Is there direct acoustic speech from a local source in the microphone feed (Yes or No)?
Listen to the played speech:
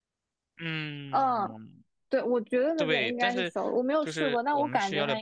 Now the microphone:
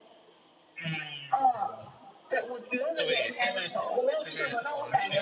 No